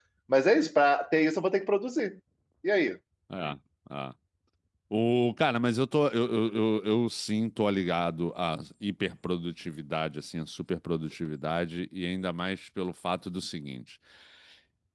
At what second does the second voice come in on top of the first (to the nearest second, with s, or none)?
none